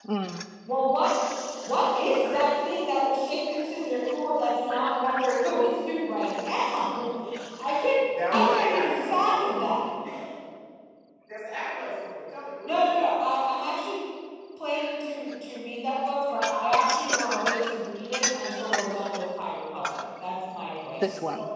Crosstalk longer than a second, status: present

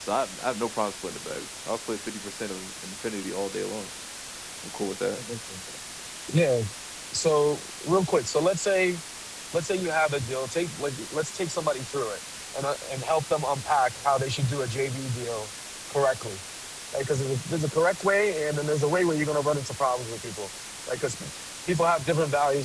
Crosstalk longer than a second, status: none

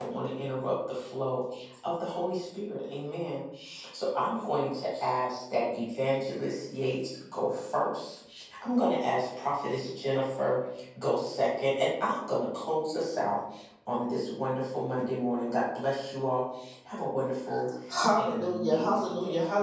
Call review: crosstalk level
present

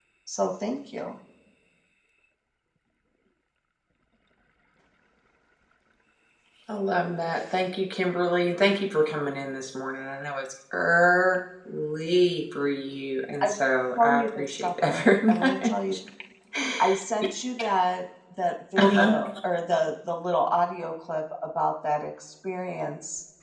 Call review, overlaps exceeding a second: present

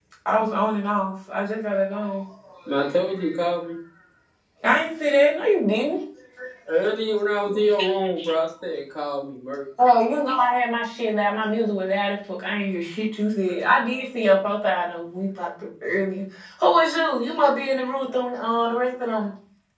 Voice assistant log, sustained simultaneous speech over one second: none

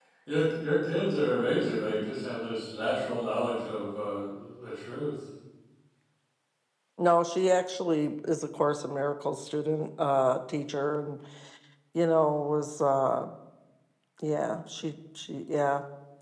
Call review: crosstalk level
none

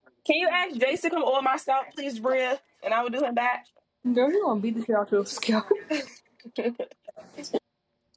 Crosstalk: none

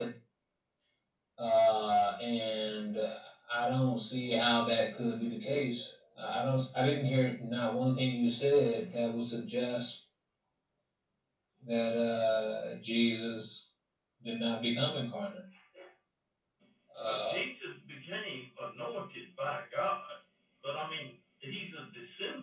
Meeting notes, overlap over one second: none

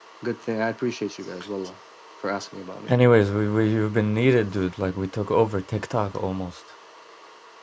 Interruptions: none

